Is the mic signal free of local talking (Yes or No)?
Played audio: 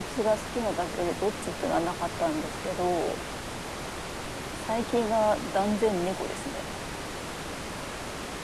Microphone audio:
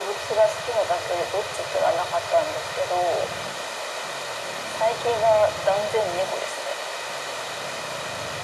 Yes